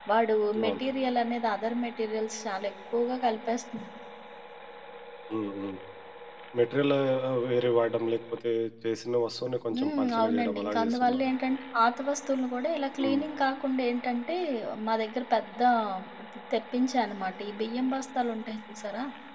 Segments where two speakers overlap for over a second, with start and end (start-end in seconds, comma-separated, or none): 9.7-11.3